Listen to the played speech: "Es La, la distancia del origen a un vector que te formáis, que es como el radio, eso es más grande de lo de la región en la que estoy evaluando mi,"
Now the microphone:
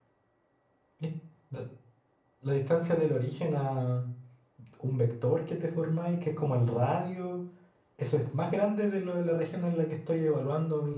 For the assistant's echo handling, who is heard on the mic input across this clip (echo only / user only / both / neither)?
echo only